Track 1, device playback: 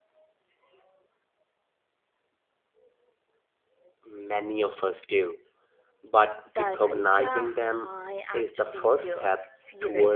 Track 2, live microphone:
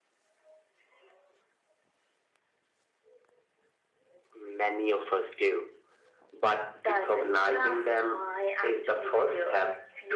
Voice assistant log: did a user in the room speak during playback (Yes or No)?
No